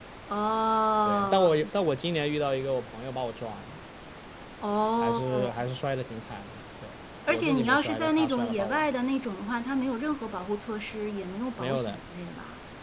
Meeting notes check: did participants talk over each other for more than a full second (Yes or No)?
Yes